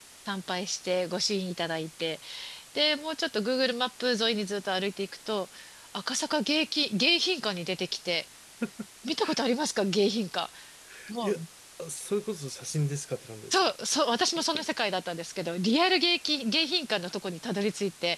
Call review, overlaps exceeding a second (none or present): none